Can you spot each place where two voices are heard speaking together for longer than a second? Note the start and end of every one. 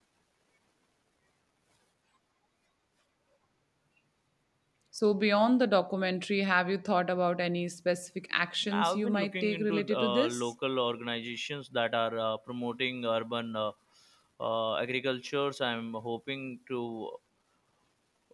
8.7-10.5

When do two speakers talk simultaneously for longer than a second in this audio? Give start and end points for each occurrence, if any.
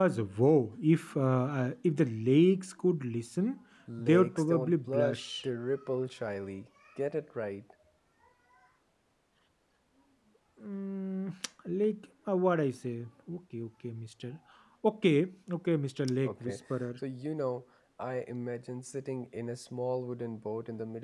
4.0-5.3

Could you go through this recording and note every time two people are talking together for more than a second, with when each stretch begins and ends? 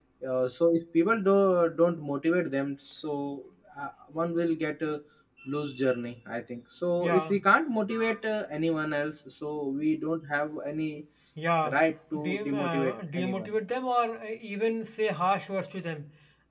12.1-13.5

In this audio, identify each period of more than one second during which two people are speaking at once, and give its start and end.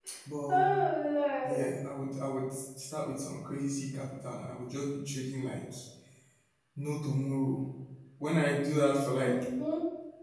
none

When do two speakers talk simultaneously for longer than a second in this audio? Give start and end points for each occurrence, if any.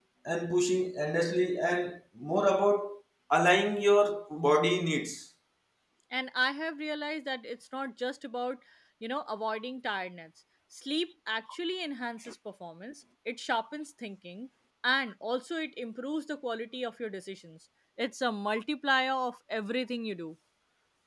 none

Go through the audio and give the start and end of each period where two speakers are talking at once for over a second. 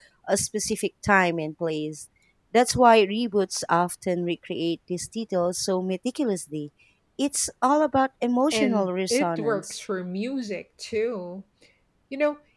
8.5-9.8

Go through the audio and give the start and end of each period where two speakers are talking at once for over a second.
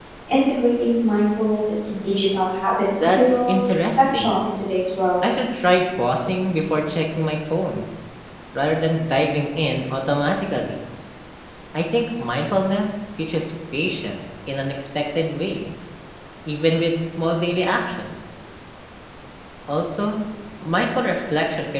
3.0-4.4

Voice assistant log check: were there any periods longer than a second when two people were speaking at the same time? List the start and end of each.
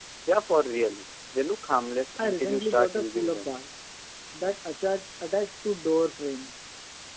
2.2-3.6

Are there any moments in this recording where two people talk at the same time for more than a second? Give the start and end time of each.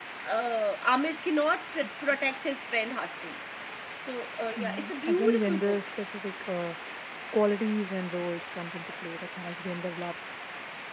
4.6-5.8

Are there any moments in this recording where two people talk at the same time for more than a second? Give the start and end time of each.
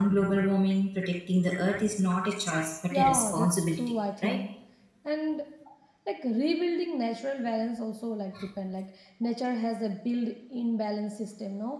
2.9-4.4

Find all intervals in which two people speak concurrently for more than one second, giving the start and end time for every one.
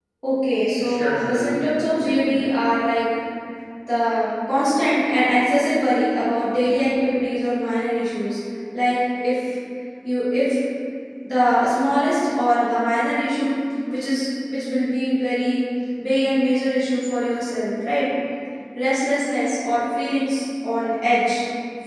0.8-2.5

